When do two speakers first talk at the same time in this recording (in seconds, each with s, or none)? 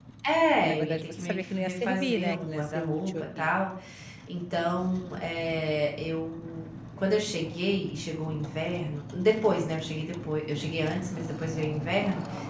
0.6 s